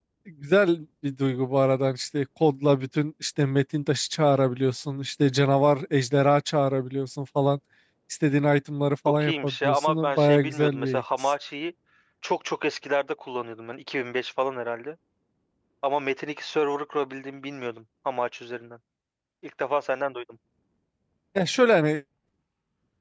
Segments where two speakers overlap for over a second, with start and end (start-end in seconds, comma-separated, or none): 9.1-11.3